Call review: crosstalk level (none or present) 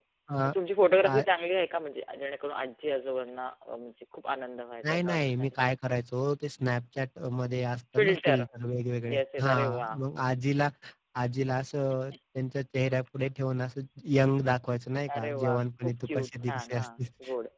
present